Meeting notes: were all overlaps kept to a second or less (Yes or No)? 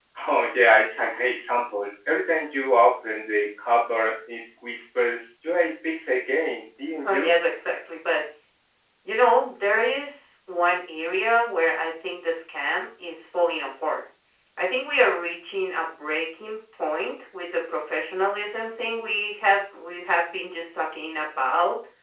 Yes